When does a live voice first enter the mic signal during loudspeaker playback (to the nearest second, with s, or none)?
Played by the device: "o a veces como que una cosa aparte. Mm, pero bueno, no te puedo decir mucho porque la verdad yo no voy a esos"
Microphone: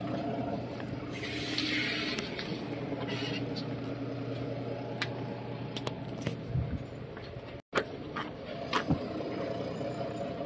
none